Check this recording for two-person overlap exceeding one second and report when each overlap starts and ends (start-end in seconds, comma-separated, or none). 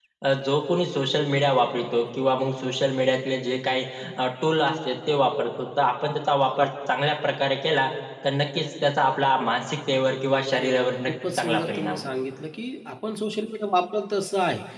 10.6-12.1